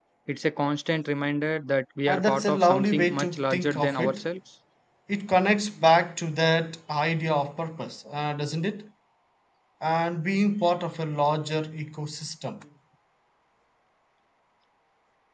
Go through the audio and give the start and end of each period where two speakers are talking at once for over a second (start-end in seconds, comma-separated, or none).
2.1-4.2